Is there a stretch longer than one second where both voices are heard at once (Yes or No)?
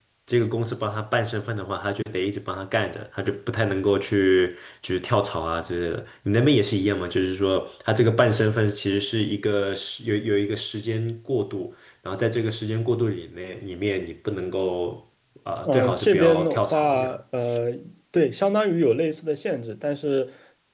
Yes